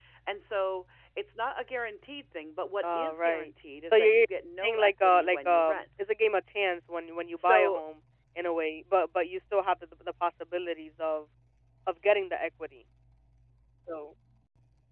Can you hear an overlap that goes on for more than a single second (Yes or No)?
Yes